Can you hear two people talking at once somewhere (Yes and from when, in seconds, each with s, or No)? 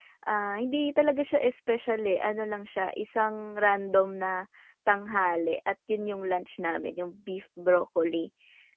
No